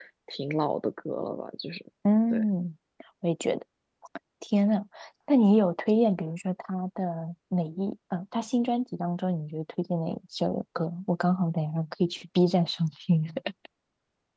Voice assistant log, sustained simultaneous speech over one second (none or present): none